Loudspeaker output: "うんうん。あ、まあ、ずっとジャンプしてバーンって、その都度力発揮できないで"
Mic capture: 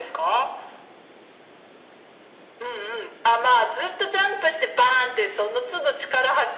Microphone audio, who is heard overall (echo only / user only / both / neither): echo only